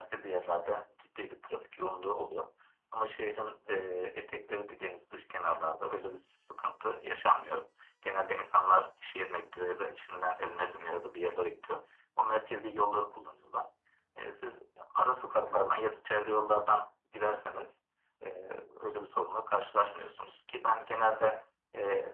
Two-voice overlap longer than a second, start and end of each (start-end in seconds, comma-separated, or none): none